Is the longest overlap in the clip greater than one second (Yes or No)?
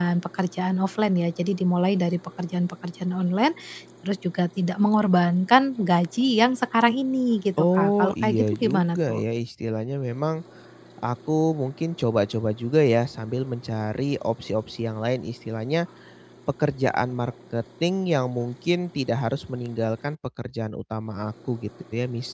Yes